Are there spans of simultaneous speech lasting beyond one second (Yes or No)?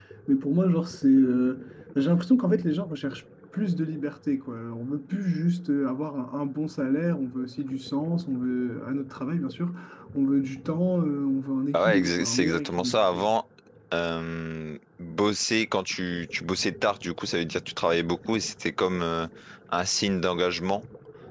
Yes